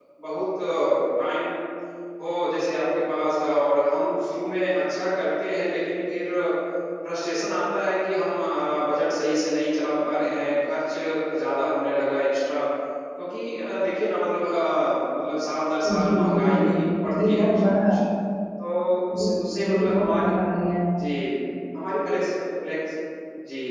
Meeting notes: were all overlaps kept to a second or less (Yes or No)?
No